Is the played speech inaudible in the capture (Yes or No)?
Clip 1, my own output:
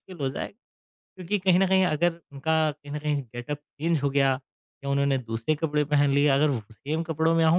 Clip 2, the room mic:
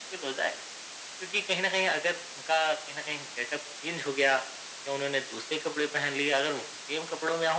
No